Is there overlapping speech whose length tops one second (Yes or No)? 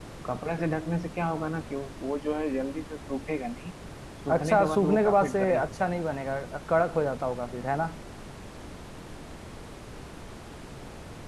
Yes